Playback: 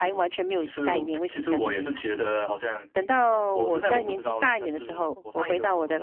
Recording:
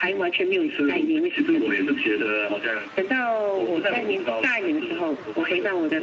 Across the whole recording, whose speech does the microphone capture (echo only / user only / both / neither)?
echo only